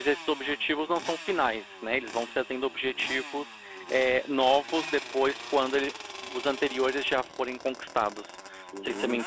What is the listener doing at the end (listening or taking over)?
taking over